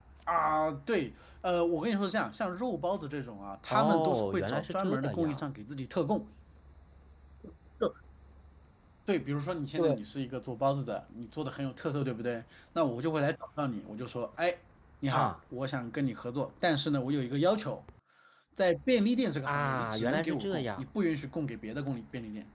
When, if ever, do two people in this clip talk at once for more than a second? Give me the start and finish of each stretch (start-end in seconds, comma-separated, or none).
3.7-5.4, 19.4-20.8